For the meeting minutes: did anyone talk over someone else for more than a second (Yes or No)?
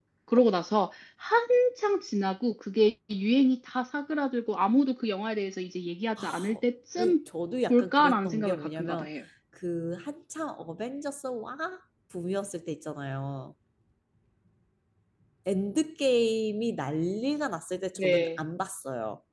Yes